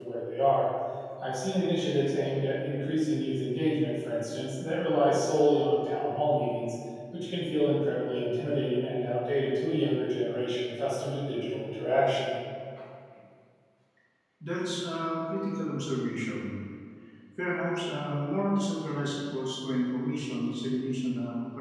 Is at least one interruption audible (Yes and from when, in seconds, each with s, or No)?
No